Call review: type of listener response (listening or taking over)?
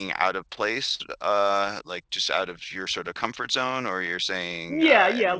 taking over